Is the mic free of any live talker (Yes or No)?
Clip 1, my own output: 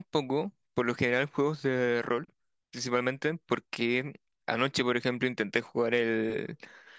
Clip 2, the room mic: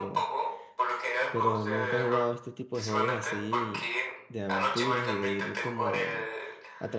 No